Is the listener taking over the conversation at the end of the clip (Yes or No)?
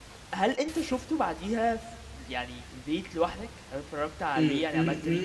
Yes